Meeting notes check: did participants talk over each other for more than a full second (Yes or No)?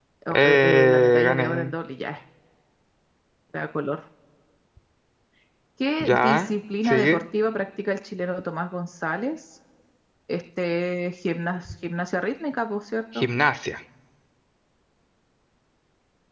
Yes